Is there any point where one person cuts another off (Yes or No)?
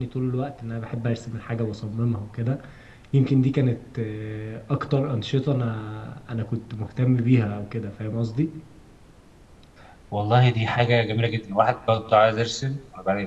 No